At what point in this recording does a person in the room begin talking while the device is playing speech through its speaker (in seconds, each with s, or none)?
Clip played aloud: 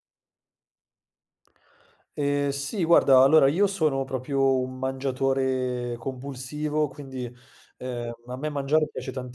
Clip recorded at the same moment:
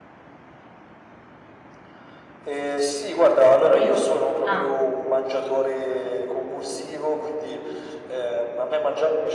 3.6 s